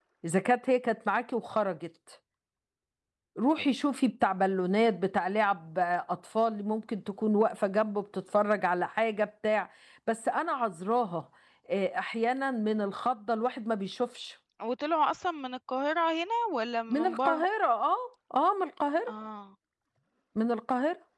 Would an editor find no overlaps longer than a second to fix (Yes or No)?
Yes